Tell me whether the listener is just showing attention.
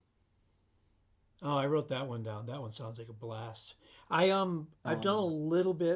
Yes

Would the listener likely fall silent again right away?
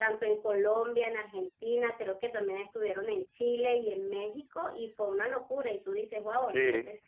Yes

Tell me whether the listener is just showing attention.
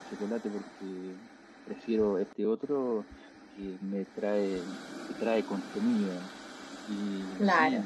Yes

